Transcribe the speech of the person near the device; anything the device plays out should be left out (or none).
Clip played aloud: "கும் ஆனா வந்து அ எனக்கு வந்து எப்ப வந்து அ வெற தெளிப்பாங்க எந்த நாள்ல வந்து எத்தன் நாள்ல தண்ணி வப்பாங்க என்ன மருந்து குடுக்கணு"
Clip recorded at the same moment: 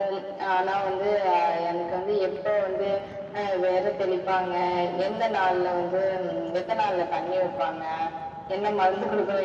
none